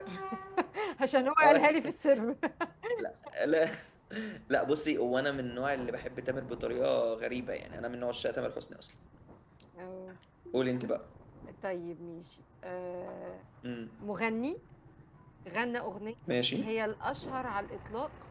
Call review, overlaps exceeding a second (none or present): none